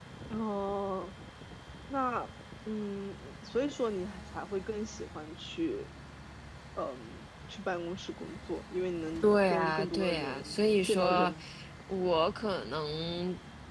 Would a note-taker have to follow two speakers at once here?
Yes, from 9.2 s

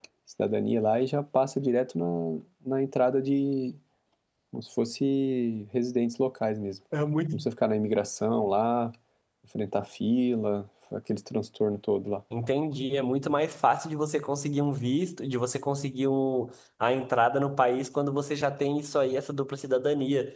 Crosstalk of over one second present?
No

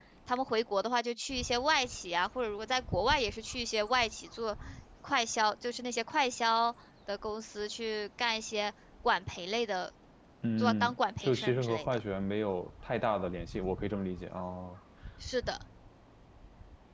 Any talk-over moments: Yes, from 10.6 s

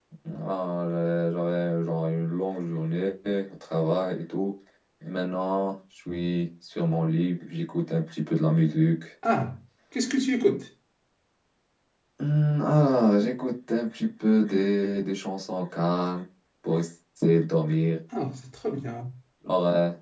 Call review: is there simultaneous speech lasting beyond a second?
No

